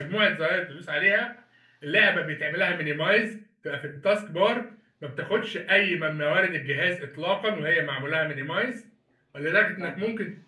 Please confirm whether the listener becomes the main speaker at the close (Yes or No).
No